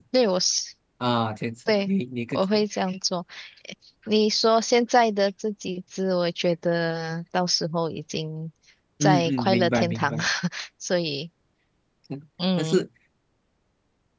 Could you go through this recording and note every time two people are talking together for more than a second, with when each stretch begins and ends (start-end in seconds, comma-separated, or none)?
9.0-10.2